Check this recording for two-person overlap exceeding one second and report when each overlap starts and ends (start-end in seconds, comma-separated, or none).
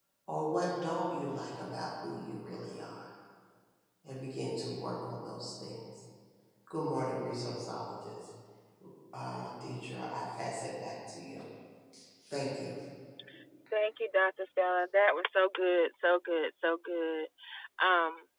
none